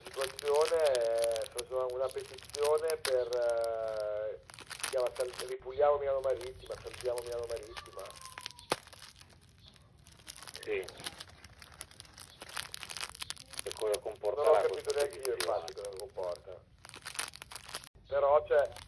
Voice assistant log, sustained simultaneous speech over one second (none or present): present